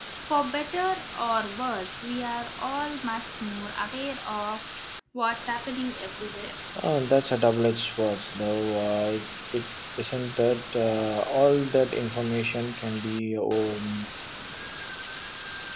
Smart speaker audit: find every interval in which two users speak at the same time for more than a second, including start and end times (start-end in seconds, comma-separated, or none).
none